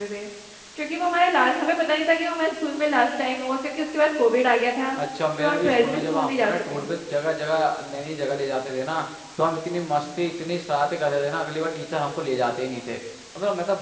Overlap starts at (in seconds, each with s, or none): 5.4 s